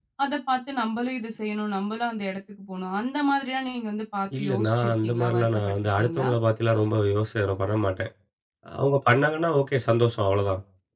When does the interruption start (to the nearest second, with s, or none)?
4 s